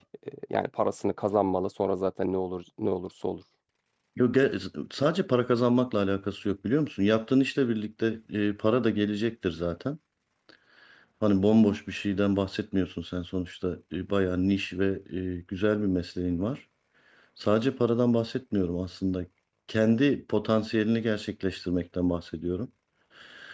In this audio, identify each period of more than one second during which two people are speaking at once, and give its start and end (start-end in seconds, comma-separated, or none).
none